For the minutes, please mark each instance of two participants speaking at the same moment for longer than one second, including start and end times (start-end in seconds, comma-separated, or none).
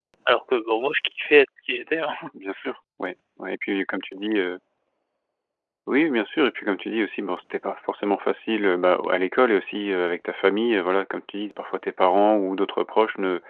none